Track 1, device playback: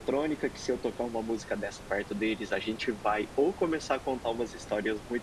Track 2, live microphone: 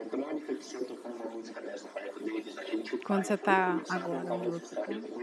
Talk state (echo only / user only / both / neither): both